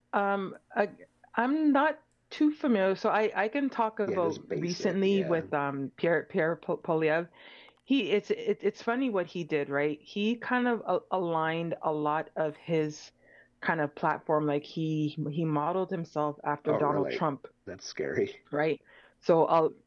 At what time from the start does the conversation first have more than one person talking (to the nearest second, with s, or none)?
4 s